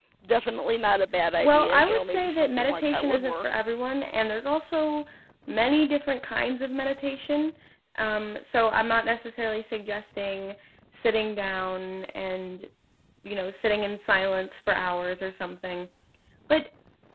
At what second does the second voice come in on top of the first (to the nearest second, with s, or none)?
1 s